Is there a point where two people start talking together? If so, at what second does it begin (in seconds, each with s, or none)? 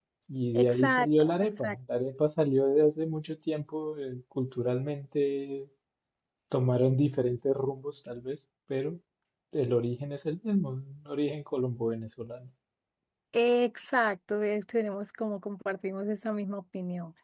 0.5 s